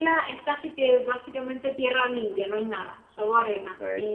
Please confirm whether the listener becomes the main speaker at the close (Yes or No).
No